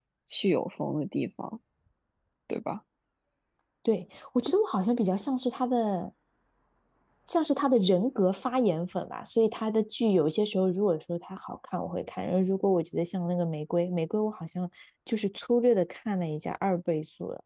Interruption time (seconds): none

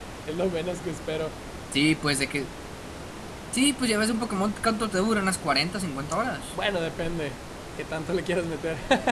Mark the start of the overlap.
none

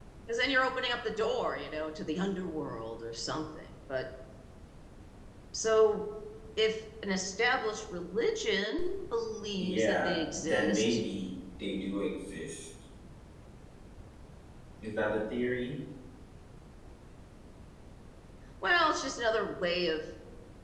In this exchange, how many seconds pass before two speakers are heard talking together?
9.6 s

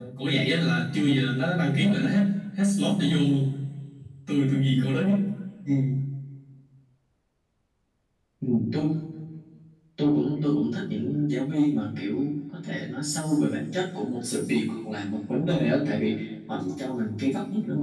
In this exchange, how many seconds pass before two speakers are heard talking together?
none

